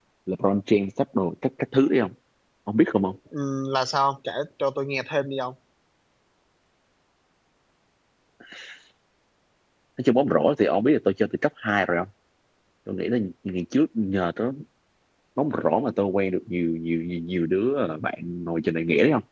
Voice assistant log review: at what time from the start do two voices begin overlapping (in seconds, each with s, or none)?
none